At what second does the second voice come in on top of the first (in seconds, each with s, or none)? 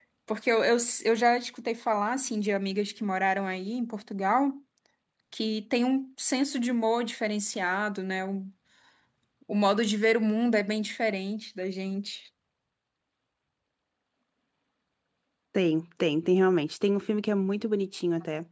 none